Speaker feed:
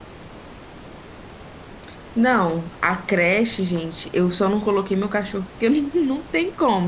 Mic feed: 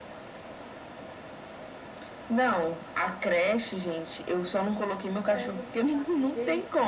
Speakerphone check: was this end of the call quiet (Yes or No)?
No